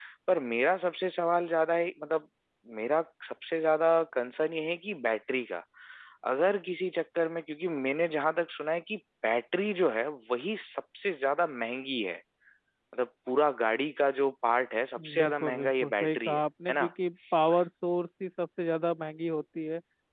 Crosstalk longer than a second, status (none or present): present